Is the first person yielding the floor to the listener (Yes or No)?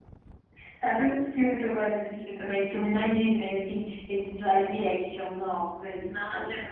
Yes